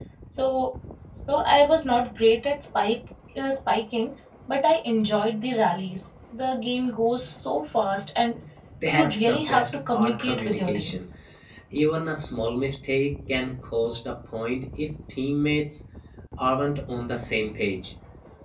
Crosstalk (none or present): present